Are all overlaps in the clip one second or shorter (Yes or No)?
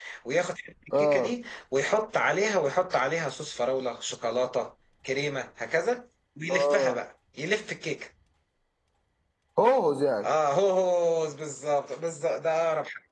Yes